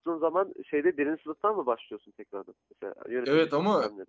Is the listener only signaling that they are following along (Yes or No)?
No